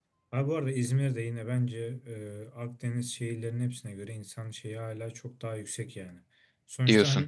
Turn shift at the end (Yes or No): No